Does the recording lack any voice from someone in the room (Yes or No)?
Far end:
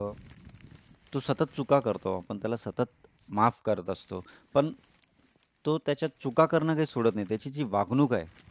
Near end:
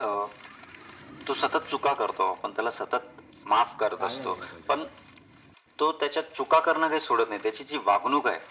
No